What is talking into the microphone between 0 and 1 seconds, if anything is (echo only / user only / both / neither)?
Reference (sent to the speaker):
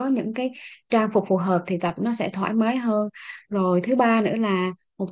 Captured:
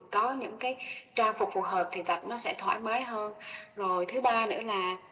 echo only